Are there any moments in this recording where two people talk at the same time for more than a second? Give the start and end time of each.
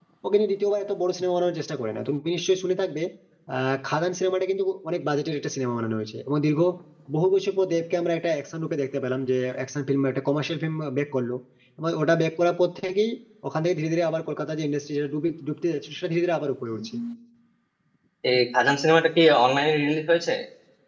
none

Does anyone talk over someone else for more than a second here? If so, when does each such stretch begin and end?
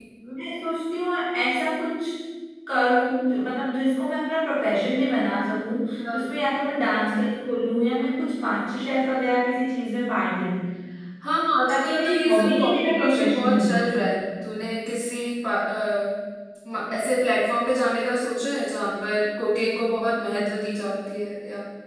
11.7-13.9

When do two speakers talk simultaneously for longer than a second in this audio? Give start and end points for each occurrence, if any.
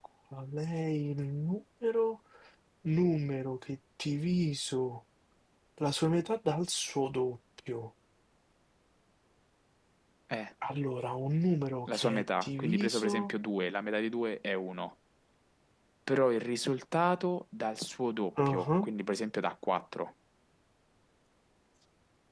11.9-13.3

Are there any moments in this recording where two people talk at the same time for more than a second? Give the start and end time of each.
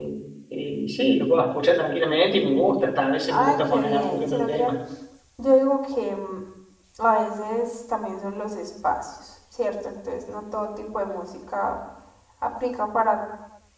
3.3-4.7

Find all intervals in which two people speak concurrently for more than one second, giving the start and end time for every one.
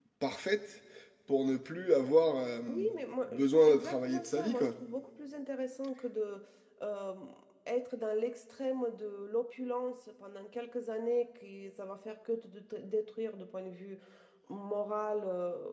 3.3-4.7

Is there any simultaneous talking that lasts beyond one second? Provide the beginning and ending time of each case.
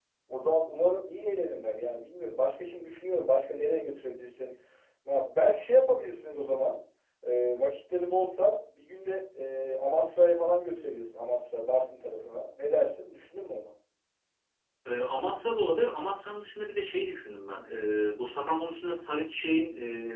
none

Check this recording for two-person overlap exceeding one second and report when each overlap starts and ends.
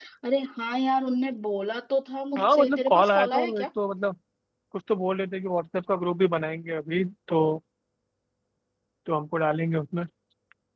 2.4-3.6

